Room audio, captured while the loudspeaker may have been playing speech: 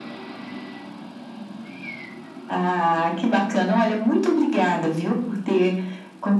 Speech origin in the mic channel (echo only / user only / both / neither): echo only